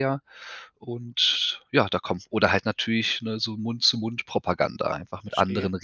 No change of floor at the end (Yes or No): No